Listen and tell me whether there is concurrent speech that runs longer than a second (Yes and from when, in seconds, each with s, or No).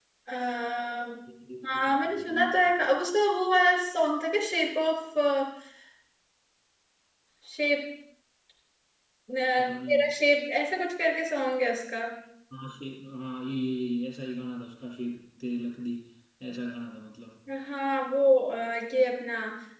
Yes, from 1.6 s